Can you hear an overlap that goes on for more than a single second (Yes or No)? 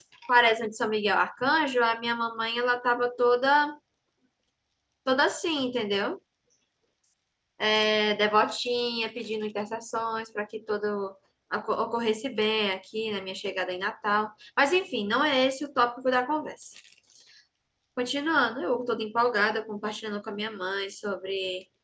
No